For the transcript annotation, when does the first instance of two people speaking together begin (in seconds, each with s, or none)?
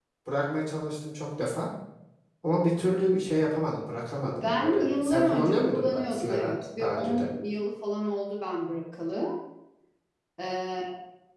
4.2 s